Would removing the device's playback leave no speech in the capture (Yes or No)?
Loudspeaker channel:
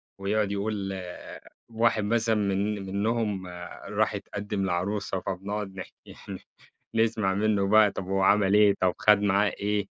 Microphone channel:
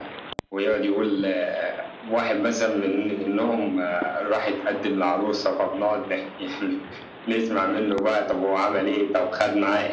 Yes